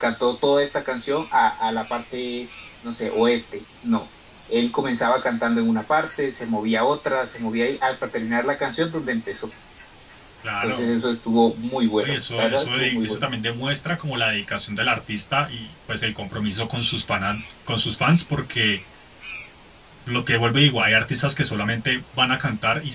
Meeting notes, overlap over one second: present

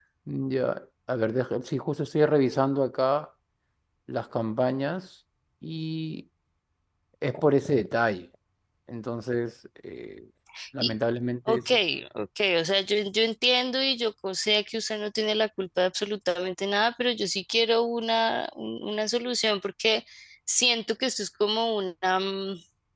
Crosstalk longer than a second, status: none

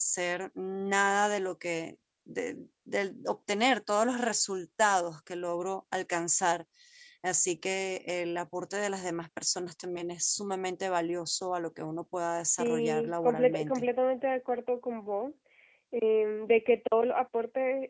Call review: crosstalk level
present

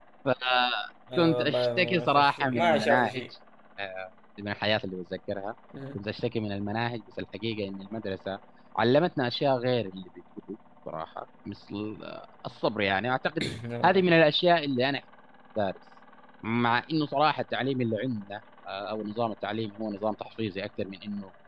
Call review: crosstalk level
present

